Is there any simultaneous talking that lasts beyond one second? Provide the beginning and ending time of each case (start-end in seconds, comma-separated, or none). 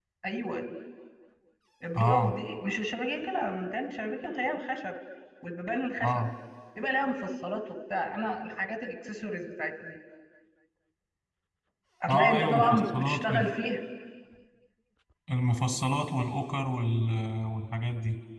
12.1-13.5